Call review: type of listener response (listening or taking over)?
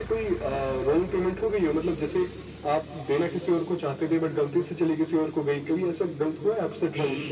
taking over